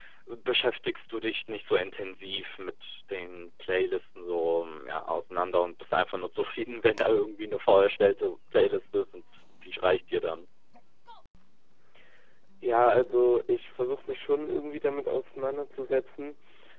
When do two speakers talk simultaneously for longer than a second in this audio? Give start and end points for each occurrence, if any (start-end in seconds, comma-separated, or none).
none